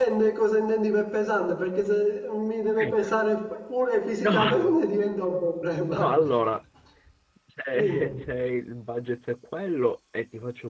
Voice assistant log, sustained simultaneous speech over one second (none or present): none